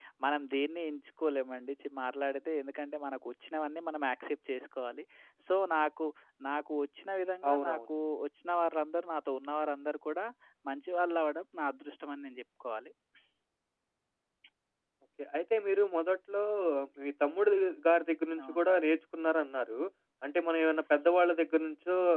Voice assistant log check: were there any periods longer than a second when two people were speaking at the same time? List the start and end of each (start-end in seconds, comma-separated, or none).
none